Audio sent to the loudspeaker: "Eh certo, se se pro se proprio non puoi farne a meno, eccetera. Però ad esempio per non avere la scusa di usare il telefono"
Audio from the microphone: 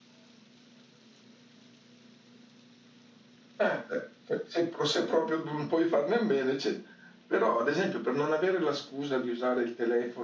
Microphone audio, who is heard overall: echo only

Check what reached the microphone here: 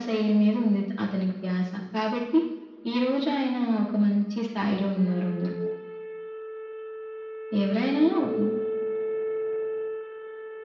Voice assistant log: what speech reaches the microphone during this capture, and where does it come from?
echo only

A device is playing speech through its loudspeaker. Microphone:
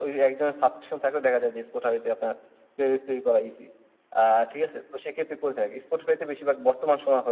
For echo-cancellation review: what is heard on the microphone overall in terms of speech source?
echo only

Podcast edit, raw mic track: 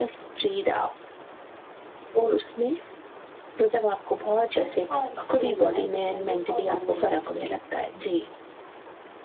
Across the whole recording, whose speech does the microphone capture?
both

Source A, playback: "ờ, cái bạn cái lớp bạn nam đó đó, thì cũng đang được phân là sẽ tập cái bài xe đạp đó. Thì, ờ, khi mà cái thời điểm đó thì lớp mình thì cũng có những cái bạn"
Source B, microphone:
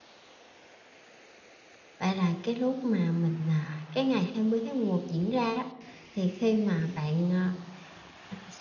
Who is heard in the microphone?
user only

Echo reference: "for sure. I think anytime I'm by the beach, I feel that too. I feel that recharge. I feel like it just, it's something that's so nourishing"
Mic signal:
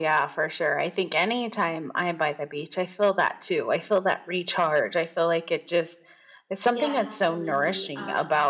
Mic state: both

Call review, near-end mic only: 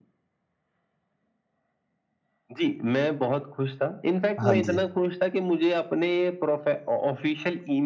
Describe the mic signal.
both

